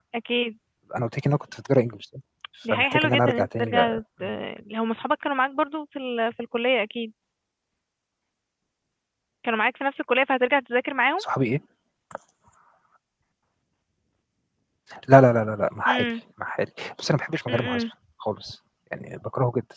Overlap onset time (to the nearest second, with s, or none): 3 s